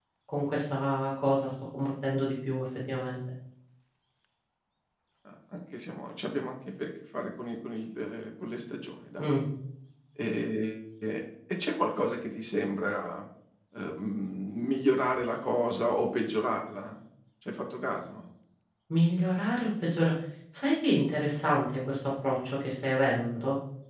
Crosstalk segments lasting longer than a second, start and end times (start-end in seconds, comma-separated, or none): none